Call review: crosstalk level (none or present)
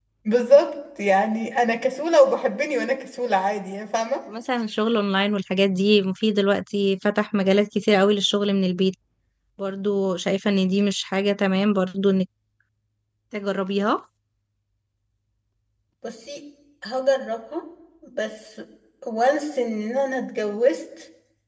none